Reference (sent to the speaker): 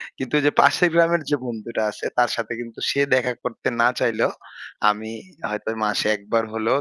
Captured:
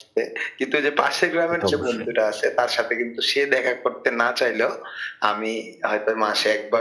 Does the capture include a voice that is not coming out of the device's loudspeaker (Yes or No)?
Yes